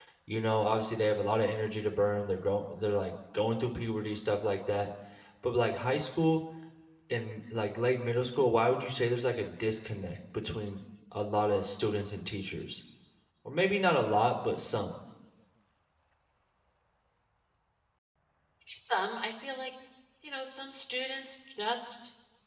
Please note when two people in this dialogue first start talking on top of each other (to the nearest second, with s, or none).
none